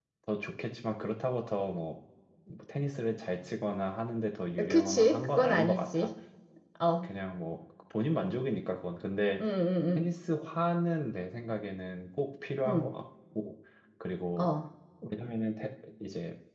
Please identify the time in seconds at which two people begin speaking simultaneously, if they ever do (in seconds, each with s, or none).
4.6 s